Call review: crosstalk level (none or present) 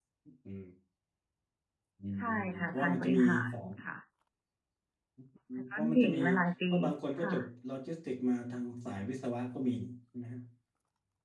present